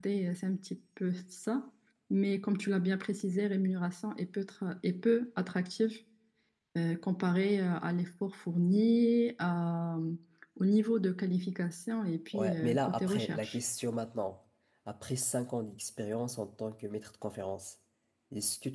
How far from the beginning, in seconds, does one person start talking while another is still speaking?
12.3 s

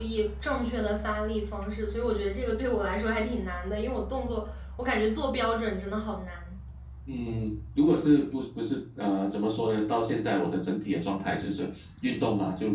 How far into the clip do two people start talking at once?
none

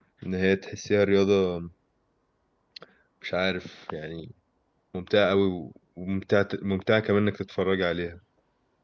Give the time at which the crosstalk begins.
none

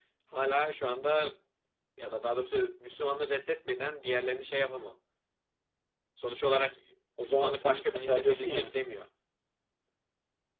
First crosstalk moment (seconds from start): 7.2 s

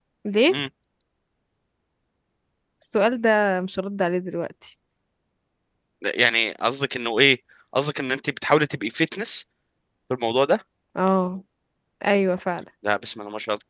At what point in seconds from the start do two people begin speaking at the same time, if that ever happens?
none

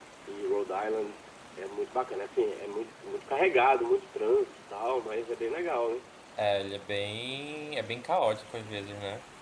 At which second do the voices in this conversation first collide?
none

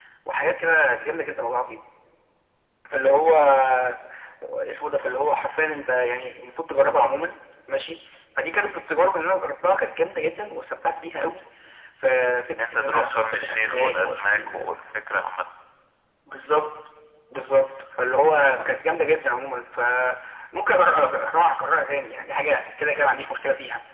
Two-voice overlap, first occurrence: 12.6 s

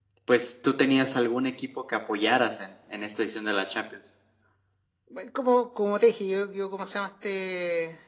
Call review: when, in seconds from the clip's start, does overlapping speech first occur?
none

